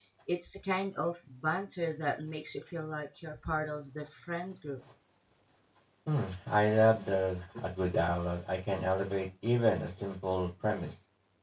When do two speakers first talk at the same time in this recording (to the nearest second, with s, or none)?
none